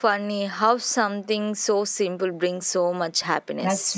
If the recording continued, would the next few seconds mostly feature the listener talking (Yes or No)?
Yes